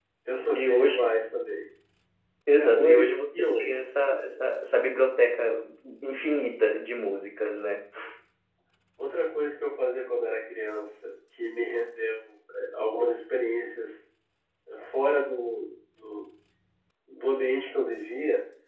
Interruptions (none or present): present